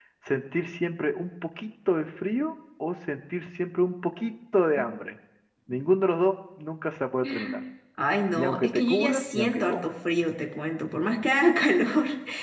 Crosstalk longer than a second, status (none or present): present